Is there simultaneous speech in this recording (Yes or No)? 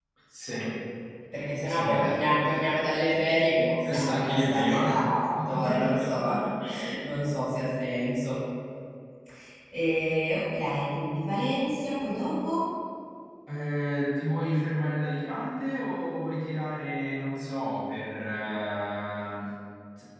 Yes